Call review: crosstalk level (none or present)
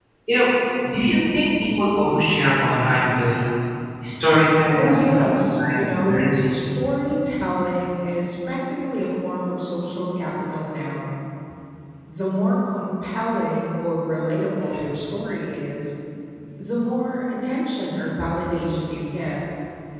present